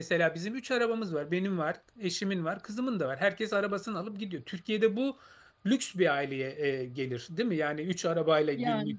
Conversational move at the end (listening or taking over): listening